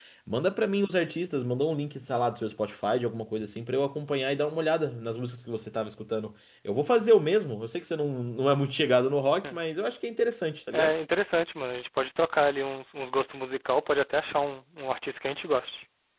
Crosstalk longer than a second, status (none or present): none